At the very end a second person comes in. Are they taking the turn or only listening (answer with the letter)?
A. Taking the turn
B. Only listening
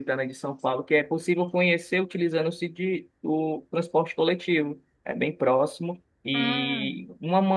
B